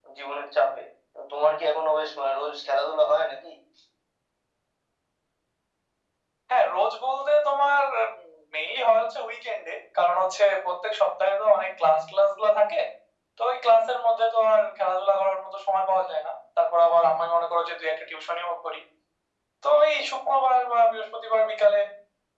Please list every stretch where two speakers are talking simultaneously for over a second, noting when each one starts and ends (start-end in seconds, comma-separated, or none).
none